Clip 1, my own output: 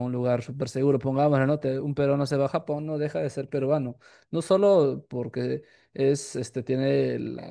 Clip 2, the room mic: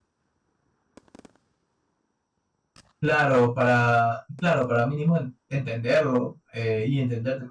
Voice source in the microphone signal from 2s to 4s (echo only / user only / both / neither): user only